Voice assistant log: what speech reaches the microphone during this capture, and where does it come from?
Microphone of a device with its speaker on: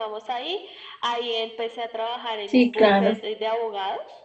both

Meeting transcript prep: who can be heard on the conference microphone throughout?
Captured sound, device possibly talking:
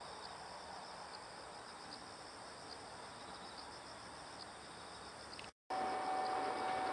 neither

